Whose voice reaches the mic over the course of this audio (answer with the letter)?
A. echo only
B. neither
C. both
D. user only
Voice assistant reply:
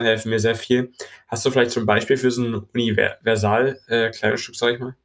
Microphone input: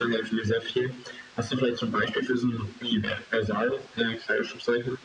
A